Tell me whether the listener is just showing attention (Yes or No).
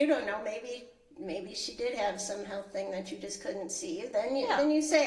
Yes